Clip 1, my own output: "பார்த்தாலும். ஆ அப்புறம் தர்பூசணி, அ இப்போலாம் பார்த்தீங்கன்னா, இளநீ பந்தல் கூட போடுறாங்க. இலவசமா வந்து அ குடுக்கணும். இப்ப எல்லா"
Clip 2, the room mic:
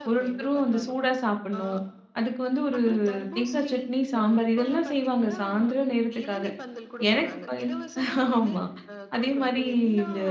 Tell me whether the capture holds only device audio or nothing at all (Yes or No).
No